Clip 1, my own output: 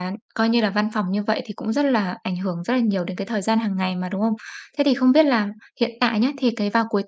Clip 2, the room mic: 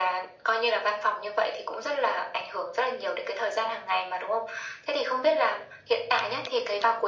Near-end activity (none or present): none